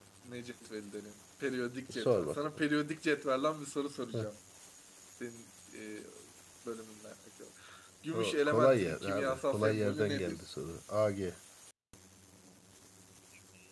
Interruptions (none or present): present